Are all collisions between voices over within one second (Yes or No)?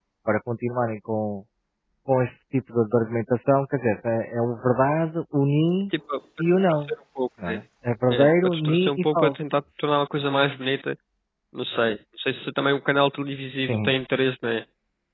No